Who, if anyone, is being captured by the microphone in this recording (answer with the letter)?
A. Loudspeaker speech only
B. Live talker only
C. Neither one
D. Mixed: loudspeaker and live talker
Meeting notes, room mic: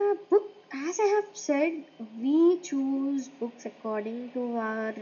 A